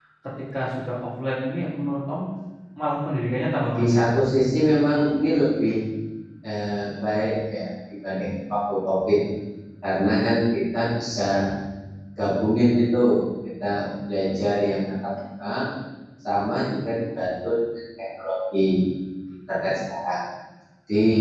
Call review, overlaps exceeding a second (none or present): none